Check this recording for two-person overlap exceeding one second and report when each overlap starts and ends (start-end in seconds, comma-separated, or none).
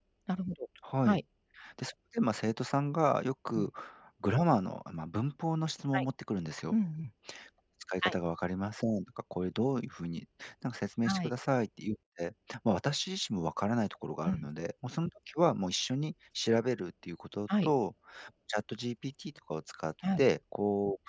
none